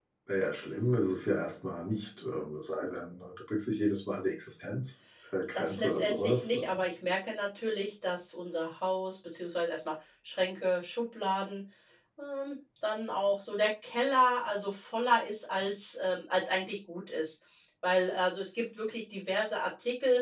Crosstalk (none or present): present